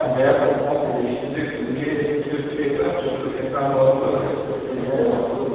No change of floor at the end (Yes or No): Yes